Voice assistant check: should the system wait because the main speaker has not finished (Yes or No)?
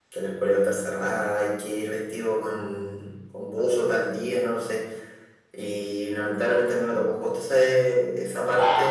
Yes